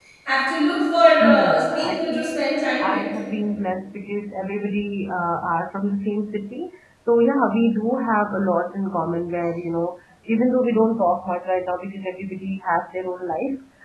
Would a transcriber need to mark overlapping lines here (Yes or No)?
Yes